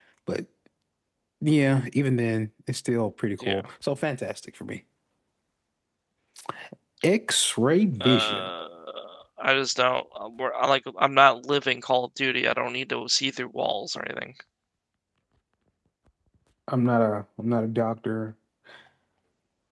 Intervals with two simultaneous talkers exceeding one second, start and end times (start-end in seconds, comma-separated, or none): none